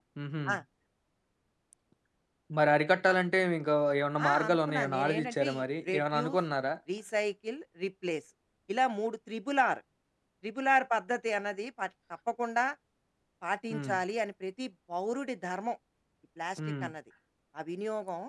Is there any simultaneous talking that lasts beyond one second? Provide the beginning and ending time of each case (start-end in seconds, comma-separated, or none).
4.3-6.4